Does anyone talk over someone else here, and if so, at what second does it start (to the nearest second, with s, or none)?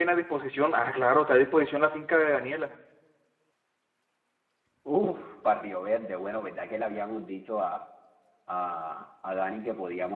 none